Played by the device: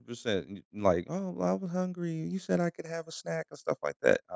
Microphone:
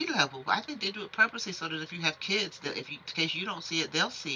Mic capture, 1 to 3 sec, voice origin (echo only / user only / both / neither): user only